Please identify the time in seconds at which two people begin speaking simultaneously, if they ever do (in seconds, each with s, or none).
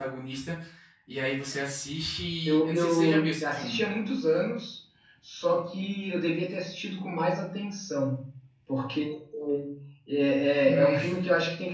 2.4 s